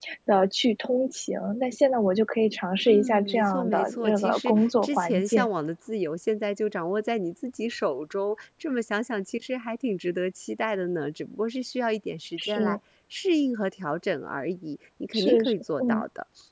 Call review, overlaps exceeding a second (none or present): present